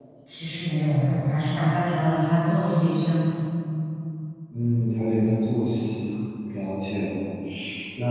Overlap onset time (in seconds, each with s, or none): none